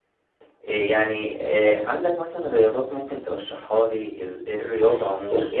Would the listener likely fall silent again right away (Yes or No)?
No